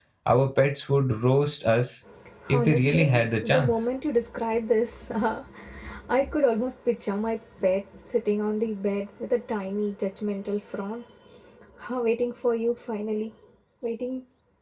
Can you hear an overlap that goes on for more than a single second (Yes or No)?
Yes